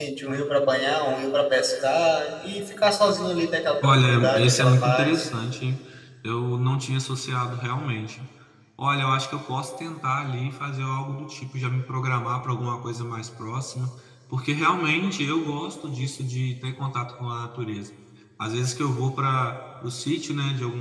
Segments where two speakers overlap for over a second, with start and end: 3.8-5.3

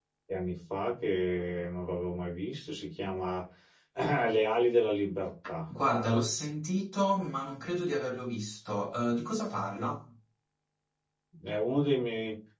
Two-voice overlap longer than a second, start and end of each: none

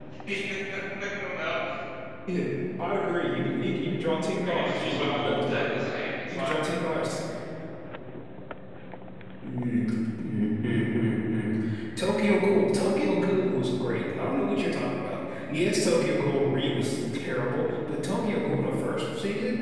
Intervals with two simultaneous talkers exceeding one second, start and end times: 4.4-5.7

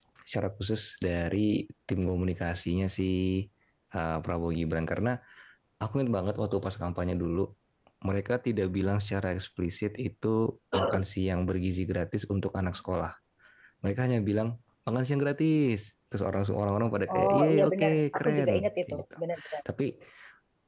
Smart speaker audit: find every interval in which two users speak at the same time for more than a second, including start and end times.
17.1-19.0

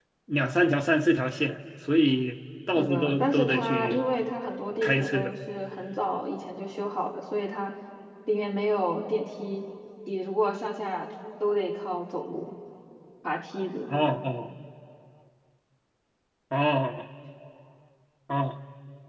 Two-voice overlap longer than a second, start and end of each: 2.8-4.0

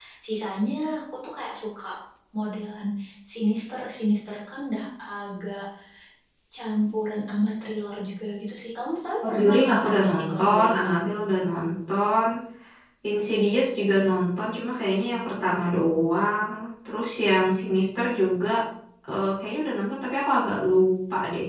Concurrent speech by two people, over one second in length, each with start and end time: 9.2-10.9

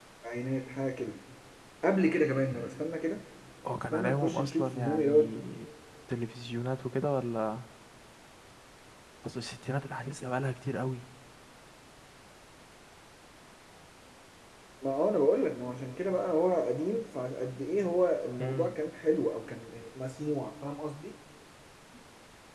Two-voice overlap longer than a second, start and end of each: 3.9-5.4

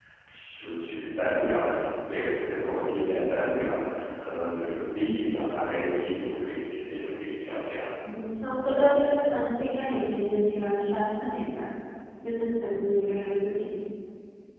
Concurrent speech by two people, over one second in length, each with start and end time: none

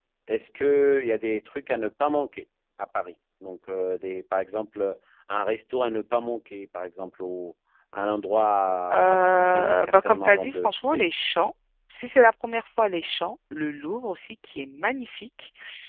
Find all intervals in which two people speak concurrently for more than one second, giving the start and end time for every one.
8.9-11.0

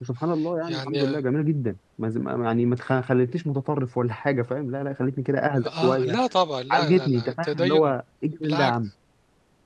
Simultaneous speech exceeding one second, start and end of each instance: 6.7-8.0

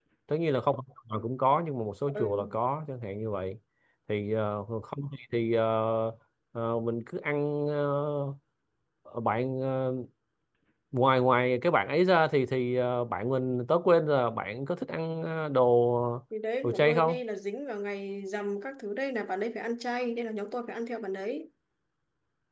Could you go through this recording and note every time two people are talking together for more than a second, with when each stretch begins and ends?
none

